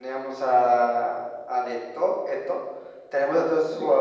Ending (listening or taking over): listening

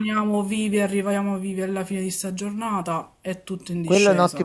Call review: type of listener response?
taking over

